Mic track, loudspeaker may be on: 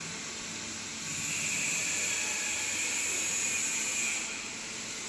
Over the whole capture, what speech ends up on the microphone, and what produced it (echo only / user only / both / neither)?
neither